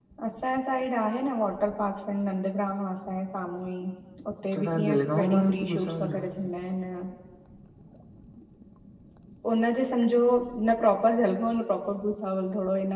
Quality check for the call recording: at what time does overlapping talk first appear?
5 s

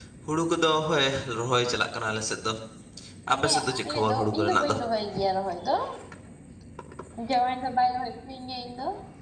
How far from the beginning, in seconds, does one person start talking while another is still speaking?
3 s

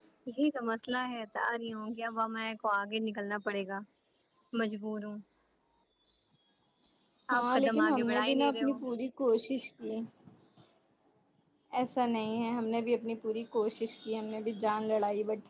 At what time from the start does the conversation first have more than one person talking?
7 s

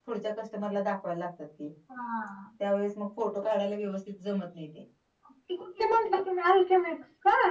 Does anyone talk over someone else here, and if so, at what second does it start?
none

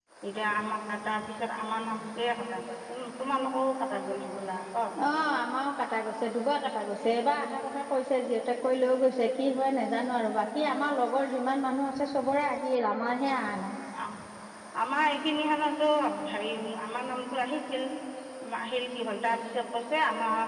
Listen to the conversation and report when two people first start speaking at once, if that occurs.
none

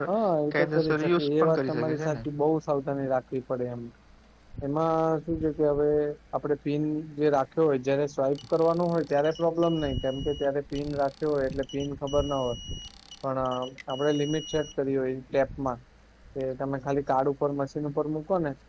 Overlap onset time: 1 s

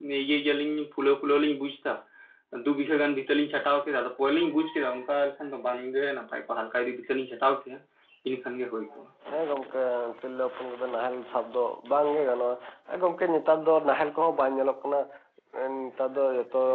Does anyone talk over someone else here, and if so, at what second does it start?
none

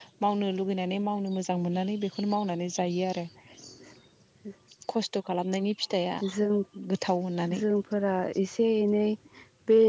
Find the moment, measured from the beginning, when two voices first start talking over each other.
none

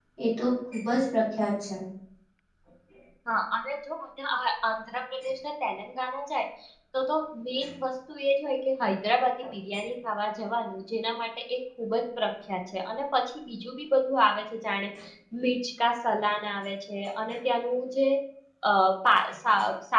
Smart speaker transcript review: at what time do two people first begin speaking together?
none

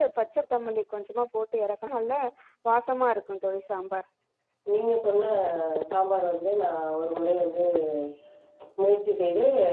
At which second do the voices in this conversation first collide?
none

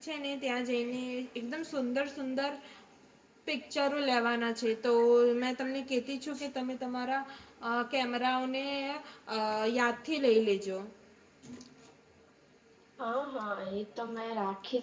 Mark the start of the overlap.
none

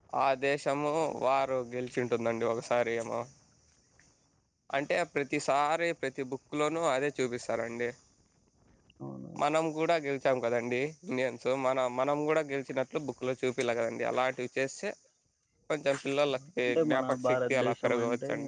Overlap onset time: 16 s

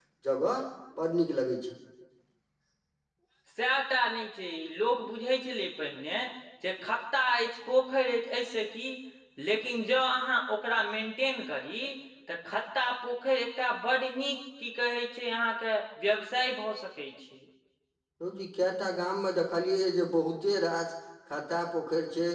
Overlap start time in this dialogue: none

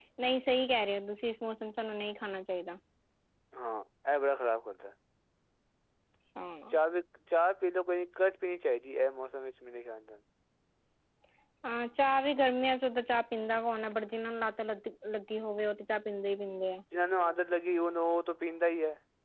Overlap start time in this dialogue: none

